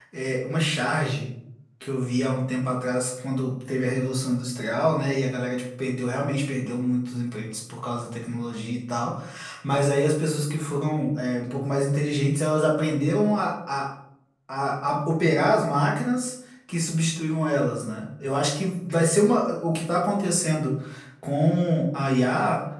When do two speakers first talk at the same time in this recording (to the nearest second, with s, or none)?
none